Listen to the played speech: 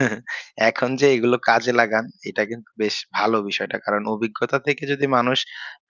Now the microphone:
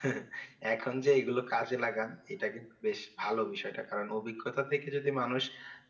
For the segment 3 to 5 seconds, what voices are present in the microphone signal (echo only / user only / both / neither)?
echo only